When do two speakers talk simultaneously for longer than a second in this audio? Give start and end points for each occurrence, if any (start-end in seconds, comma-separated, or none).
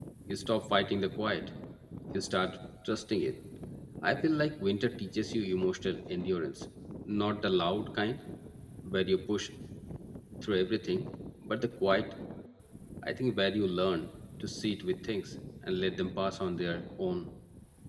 none